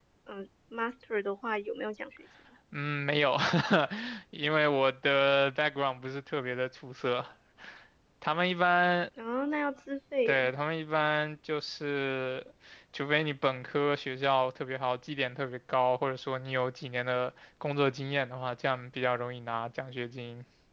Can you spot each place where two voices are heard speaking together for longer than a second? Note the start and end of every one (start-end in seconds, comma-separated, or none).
none